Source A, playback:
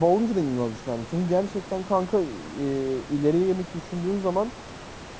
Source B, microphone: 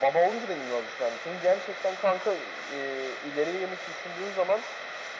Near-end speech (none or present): none